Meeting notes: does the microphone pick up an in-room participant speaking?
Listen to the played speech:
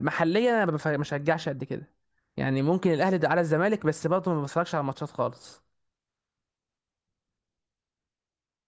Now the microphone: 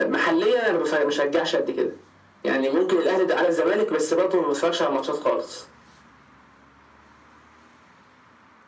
No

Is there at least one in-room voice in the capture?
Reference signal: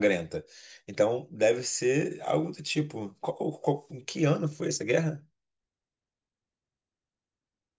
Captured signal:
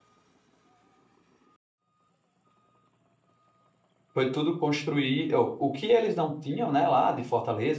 Yes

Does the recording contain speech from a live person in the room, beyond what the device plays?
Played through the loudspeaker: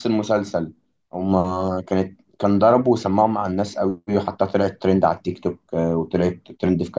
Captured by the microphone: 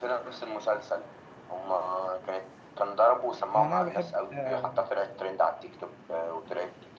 Yes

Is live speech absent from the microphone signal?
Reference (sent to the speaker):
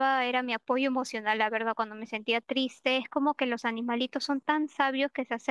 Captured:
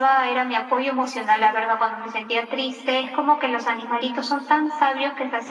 Yes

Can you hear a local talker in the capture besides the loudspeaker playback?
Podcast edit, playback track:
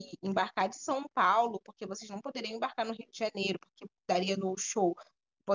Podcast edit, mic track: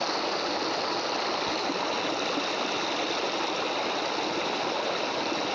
No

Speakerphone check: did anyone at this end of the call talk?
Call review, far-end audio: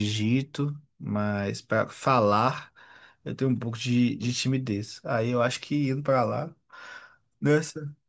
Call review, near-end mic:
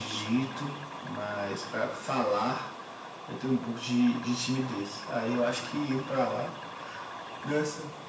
No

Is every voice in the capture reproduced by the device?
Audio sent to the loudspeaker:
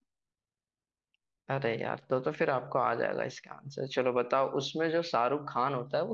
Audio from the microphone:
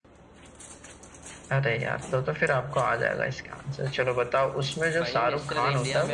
No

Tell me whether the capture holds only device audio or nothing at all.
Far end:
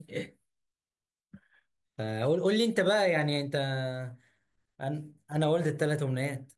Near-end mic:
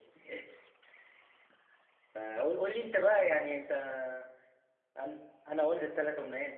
Yes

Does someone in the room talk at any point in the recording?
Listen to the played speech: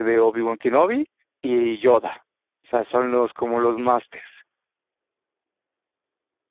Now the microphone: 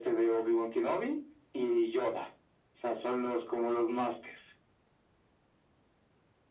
No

